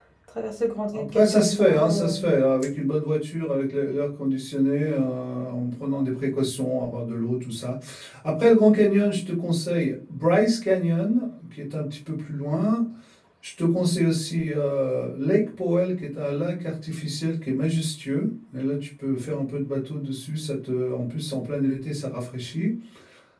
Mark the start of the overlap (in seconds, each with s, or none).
0.9 s